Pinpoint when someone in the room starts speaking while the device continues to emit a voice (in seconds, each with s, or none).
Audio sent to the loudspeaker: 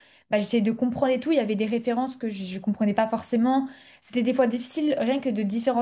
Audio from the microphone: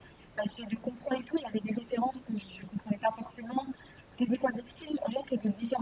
none